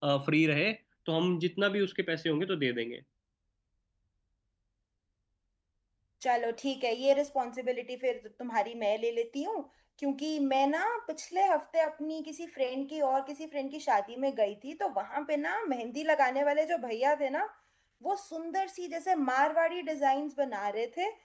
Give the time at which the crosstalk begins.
none

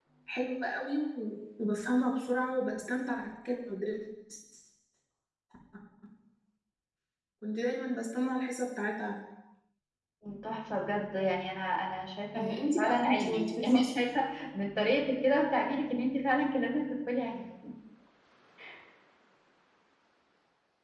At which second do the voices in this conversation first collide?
12.3 s

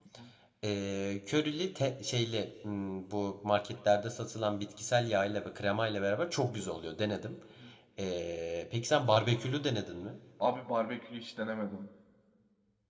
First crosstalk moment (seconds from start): none

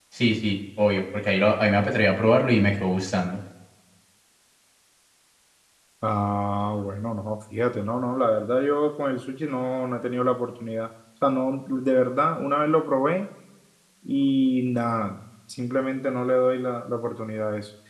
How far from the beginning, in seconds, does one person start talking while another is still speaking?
none

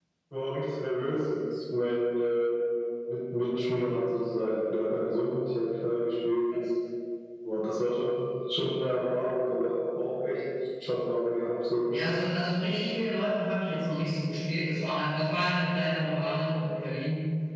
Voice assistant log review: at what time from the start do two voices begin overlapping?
none

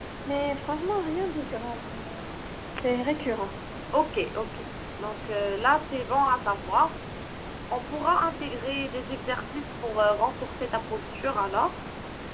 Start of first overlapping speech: none

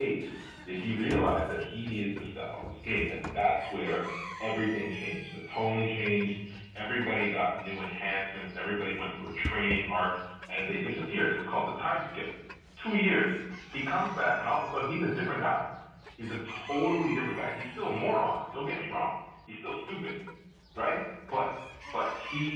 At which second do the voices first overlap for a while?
none

